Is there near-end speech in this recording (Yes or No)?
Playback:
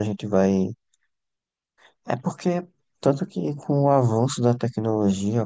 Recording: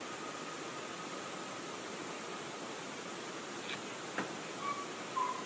No